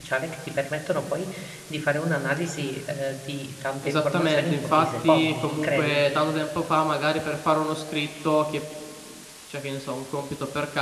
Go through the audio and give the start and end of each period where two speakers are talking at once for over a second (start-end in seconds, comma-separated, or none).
3.8-6.0